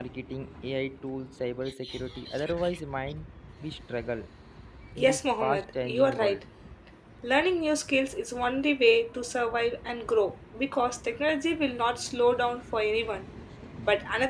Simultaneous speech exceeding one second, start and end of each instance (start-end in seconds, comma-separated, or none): 5.0-6.4